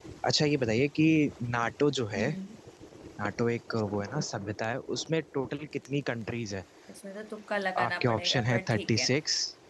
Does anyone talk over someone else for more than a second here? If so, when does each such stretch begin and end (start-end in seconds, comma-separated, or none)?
7.8-9.1